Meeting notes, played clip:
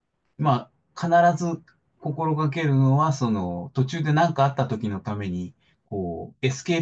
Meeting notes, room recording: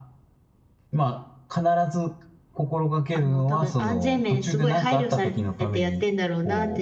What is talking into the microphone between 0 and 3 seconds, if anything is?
echo only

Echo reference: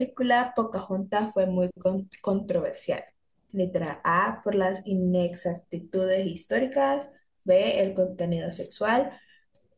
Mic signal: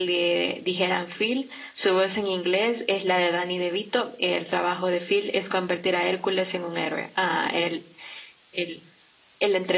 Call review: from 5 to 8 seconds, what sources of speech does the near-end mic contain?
user only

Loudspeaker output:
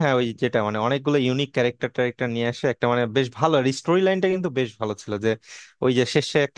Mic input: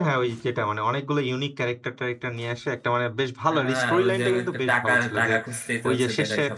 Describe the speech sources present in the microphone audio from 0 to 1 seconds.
echo only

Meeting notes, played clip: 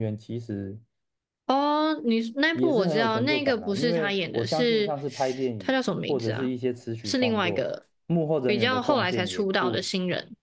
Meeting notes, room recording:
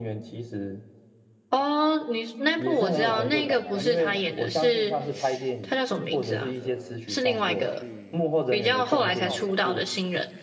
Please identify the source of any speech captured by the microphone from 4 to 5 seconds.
both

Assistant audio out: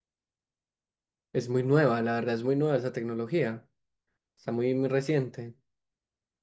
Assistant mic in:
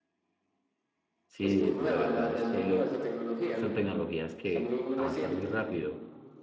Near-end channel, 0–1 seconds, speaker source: neither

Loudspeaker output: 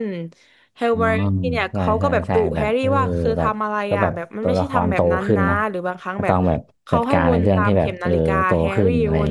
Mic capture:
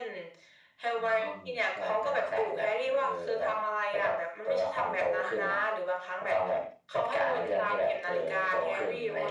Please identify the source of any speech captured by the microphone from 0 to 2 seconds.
echo only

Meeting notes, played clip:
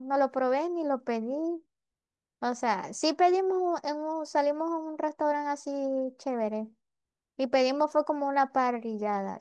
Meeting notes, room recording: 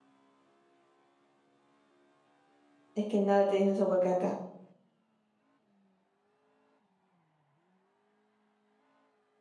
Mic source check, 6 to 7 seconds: neither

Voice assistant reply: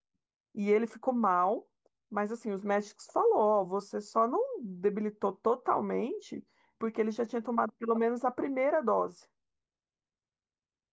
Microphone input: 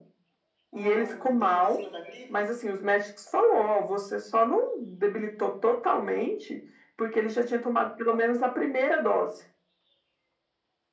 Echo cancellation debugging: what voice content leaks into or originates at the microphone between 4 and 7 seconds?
echo only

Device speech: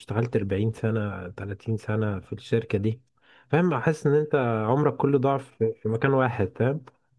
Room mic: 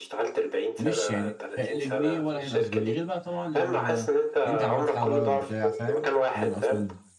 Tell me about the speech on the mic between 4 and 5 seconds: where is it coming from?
both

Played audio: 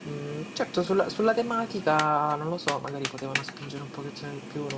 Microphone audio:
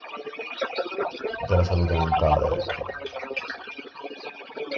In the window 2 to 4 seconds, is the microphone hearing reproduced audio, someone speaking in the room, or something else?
both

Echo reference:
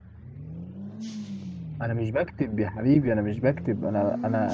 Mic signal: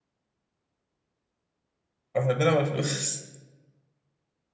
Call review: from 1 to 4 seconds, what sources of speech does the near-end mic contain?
user only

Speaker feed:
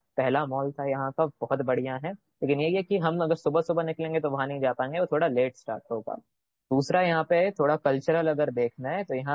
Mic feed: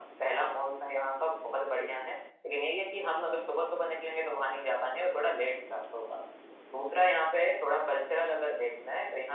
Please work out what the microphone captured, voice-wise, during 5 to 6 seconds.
echo only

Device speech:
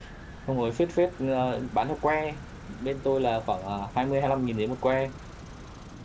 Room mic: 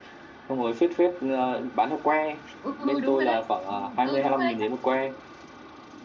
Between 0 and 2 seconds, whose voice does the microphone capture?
echo only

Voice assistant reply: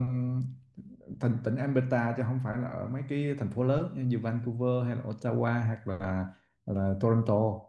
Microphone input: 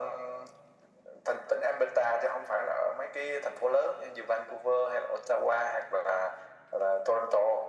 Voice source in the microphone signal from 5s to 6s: echo only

